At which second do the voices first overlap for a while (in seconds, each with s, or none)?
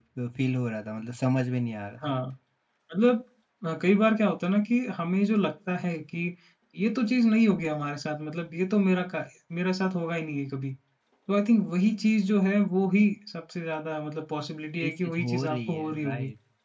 14.8 s